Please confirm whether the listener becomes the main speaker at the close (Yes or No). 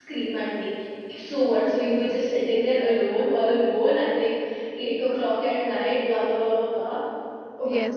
Yes